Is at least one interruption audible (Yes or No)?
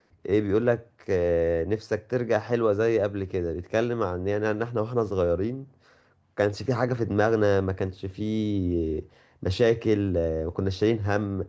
No